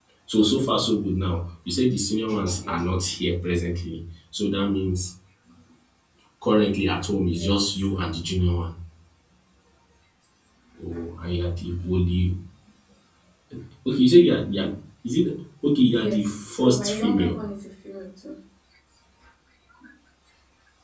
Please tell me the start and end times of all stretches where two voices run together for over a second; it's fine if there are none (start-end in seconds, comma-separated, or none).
15.9-17.4